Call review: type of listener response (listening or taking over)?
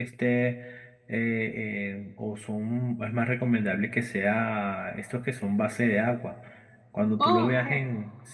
listening